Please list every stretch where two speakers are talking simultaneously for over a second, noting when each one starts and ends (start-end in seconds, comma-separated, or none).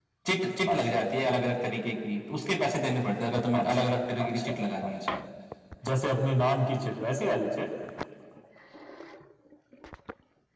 none